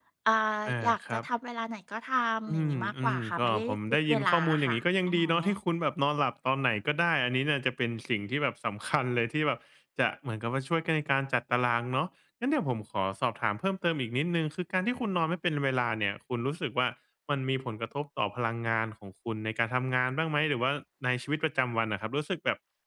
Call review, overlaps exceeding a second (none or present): present